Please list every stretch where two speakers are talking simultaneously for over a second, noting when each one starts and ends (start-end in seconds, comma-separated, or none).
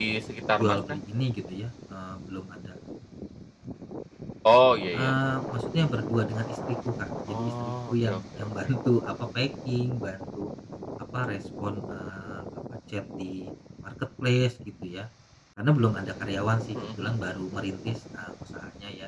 7.3-8.7